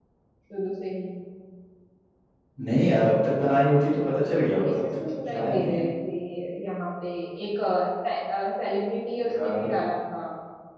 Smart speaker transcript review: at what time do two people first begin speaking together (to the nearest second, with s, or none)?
5 s